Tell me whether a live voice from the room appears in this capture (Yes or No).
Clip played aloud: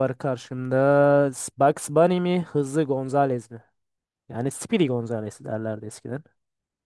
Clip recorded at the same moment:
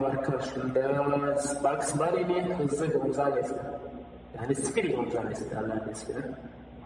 No